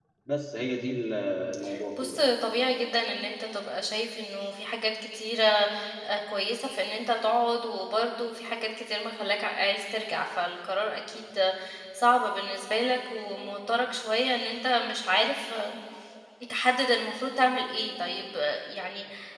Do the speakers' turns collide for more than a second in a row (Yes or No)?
No